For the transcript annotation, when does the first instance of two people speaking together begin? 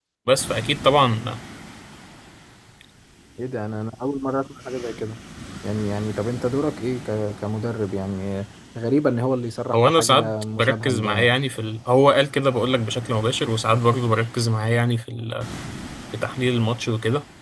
9.7 s

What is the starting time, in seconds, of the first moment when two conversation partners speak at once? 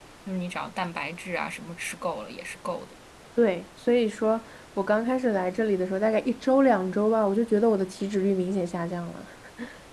none

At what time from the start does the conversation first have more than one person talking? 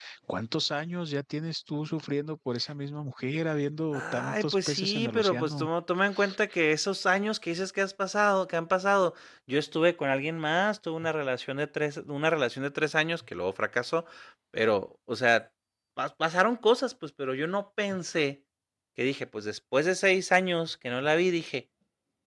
3.9 s

